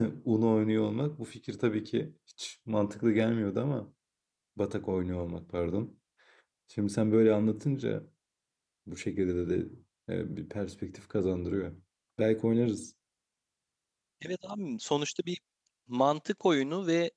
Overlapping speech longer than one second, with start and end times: none

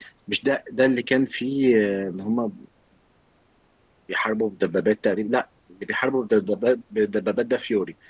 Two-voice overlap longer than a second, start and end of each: none

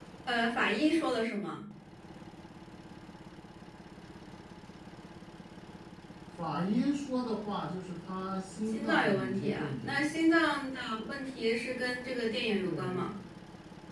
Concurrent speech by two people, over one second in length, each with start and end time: 8.7-10.0

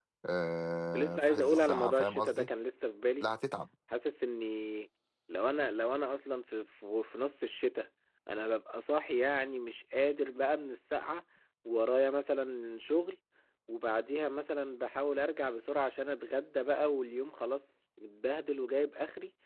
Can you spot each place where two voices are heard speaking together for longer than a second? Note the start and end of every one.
0.9-2.5

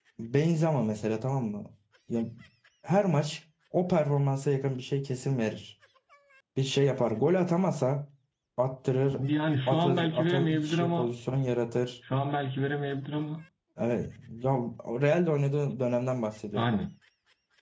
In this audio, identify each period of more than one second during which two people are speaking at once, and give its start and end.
9.7-11.1

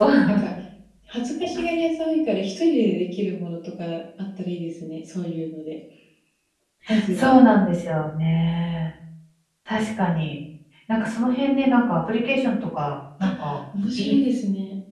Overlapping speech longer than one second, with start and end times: none

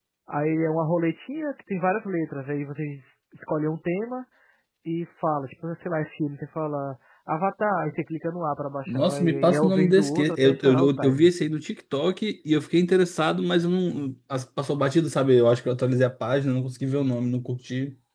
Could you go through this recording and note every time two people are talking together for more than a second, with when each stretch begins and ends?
8.9-11.3

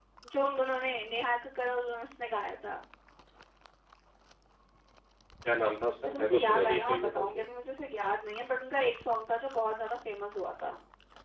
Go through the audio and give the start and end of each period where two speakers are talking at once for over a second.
6.0-7.5

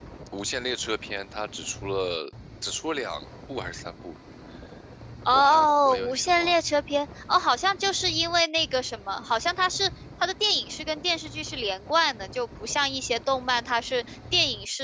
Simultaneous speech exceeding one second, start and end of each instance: 5.3-6.8

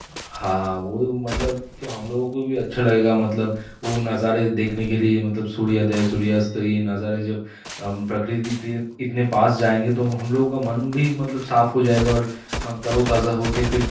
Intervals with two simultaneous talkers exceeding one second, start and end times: none

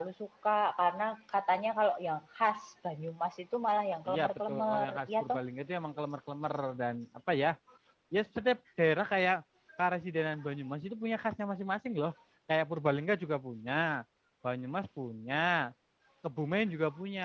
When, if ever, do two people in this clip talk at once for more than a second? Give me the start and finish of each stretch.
4.1-5.4

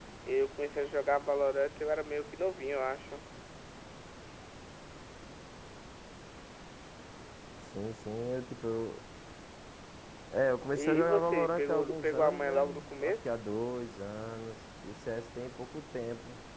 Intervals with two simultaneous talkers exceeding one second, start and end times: 10.7-13.1

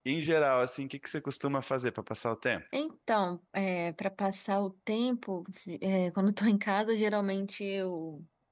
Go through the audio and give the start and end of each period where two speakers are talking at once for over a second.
none

